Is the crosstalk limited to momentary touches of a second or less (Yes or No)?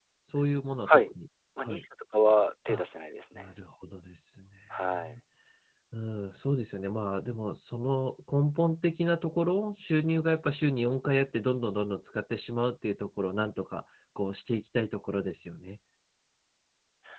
Yes